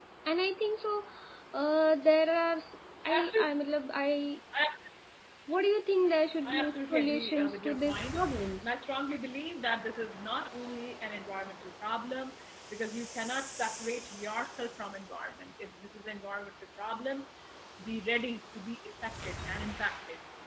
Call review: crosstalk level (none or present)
present